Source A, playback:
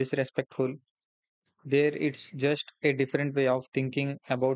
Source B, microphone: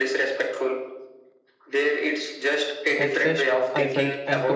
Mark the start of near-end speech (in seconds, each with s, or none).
3.0 s